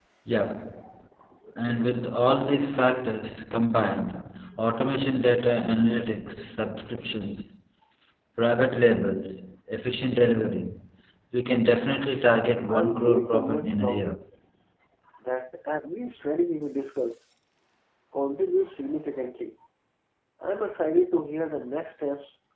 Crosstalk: present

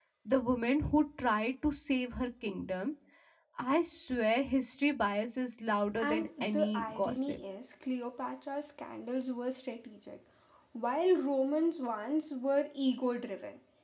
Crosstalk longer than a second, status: present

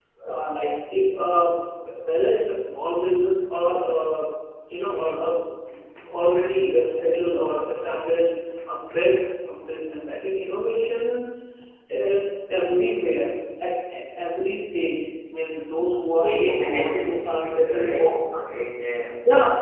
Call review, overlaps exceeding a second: present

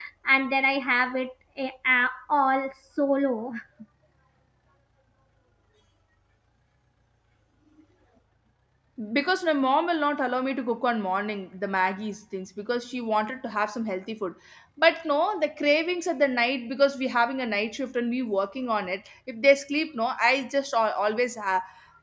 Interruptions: none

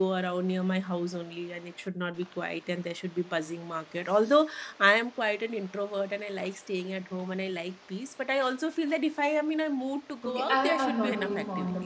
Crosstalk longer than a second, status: present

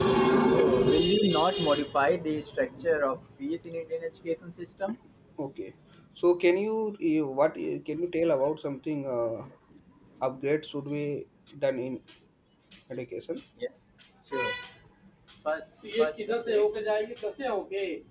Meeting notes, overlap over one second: none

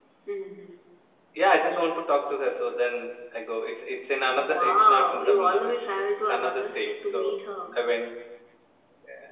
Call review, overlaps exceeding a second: present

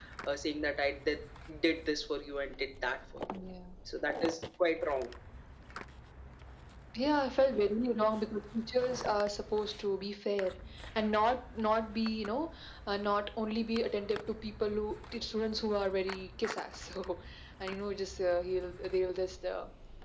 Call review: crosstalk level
none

